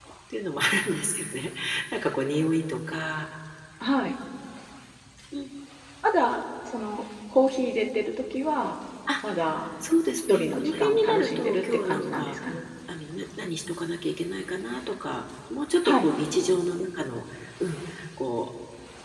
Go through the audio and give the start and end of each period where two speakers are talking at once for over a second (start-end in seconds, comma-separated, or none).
10.3-12.4